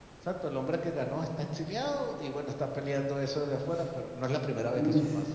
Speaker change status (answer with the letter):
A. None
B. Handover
B